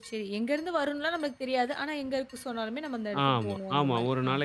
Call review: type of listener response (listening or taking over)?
taking over